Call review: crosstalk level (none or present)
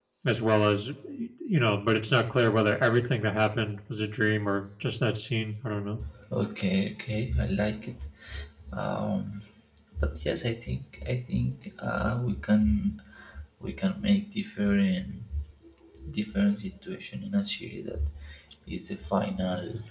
none